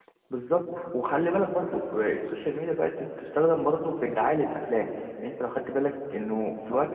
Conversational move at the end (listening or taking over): listening